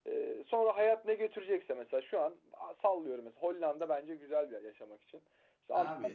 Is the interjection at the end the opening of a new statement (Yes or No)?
No